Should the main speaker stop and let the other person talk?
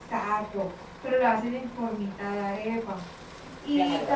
Yes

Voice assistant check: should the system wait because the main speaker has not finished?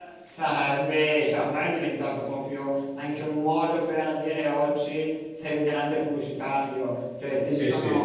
Yes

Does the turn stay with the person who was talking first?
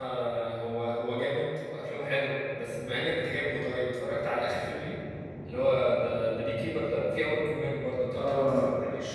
No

